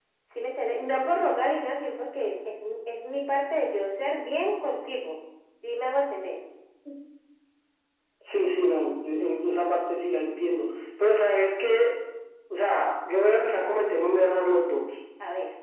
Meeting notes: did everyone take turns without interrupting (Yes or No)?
Yes